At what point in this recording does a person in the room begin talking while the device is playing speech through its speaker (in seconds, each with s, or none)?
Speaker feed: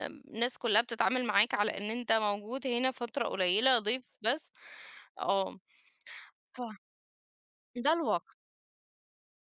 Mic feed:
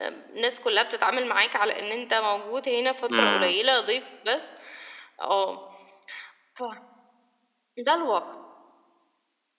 3.1 s